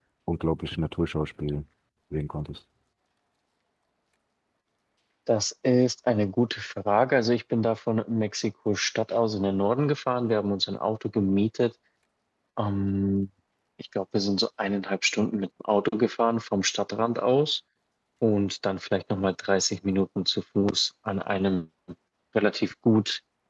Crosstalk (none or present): none